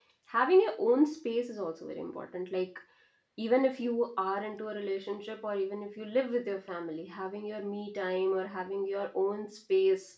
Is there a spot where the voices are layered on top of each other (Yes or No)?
No